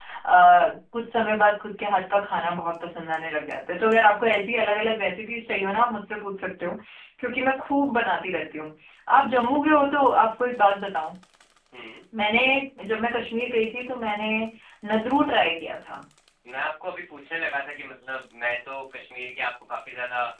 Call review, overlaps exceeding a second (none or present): none